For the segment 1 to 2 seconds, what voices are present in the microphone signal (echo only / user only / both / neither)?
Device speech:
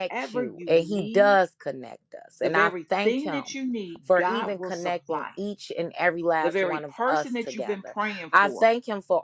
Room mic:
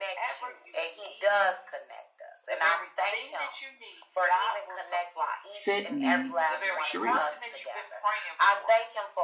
echo only